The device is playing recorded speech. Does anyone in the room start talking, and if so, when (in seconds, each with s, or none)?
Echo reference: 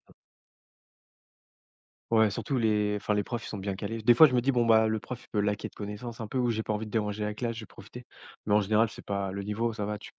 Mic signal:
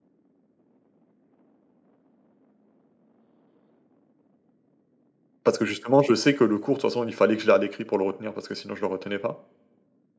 5.4 s